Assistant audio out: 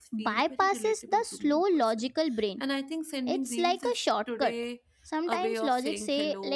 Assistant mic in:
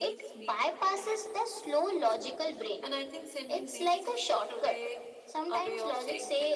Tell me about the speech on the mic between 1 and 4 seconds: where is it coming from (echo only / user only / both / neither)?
echo only